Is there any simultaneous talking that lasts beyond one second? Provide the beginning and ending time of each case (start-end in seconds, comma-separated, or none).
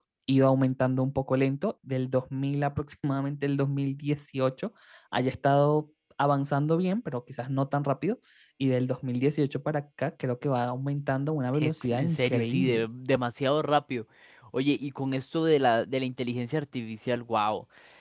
11.5-12.8